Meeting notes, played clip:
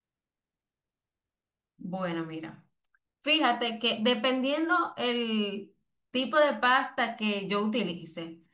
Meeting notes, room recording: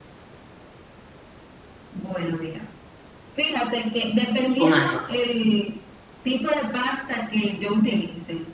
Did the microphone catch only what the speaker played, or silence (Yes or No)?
No